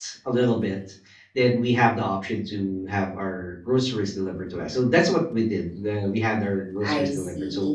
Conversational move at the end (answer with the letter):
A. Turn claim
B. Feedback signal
B